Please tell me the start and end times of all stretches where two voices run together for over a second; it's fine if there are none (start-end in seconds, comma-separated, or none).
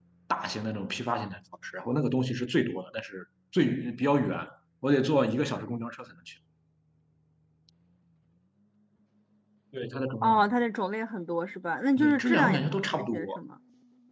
12.0-13.4